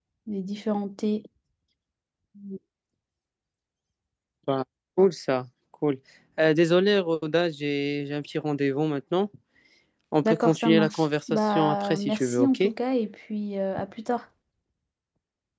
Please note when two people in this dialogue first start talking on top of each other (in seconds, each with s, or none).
10.2 s